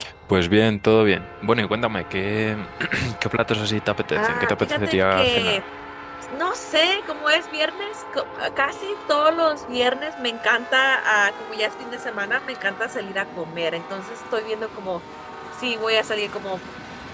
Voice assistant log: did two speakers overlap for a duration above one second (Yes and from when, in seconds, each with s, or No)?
Yes, from 4.1 s